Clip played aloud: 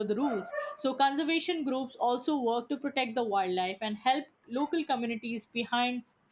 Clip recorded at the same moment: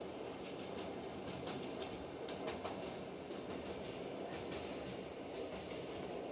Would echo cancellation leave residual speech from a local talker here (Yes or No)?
No